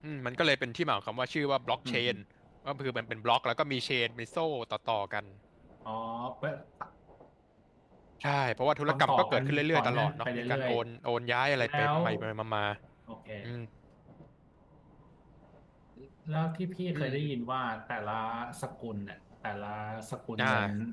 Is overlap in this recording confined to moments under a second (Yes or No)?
No